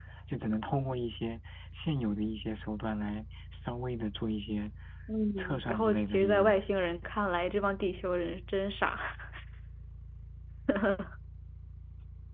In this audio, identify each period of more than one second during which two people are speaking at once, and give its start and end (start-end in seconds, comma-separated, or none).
5.4-6.6